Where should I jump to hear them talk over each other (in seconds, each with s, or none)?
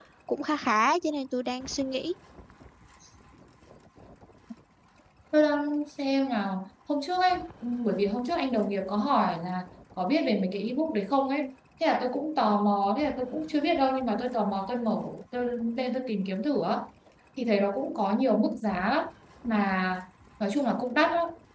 none